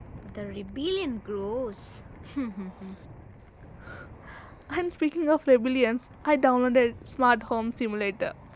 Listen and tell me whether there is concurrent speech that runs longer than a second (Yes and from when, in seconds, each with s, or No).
No